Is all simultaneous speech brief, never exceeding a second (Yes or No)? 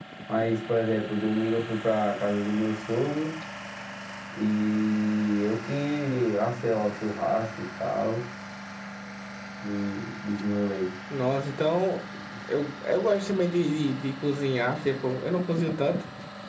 Yes